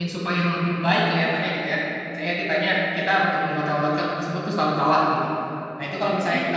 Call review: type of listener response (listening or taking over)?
listening